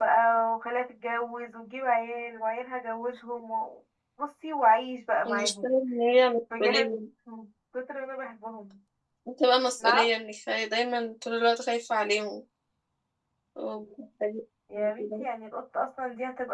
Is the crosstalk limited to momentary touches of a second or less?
Yes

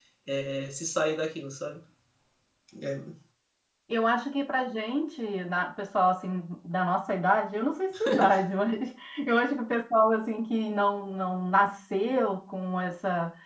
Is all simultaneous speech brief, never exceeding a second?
Yes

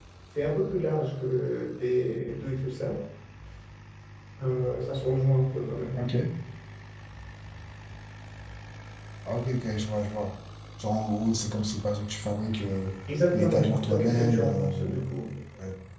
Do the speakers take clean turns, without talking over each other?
No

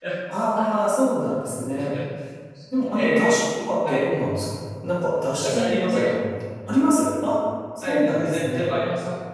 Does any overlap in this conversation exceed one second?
Yes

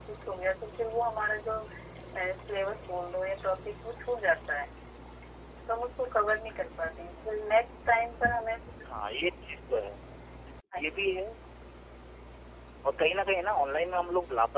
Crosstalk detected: No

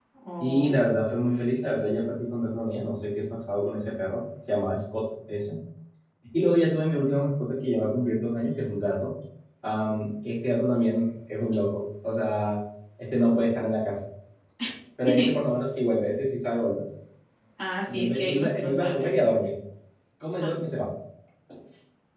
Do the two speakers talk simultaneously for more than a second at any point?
Yes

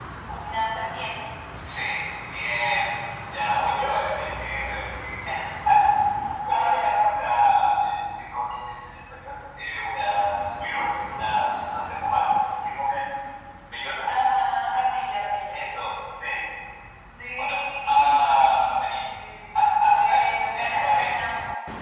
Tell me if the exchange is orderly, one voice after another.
No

